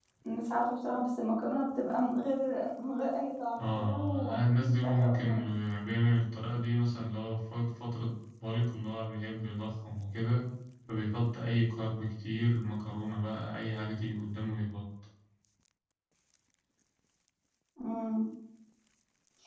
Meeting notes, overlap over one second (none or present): present